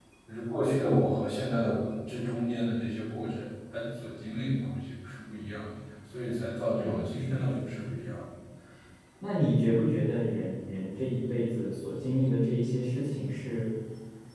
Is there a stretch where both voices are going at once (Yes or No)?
Yes